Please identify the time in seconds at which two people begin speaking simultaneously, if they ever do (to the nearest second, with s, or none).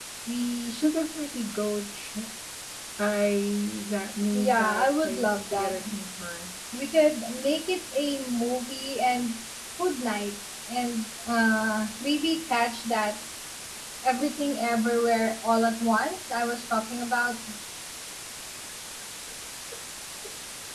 4 s